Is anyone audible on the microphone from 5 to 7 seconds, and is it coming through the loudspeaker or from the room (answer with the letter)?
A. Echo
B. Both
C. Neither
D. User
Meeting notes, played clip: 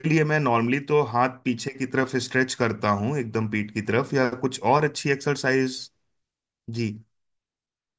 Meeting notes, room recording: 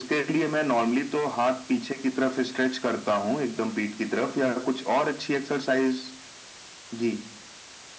A